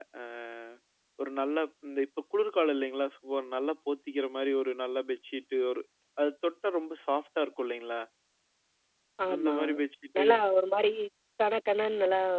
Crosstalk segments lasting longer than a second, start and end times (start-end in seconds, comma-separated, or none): none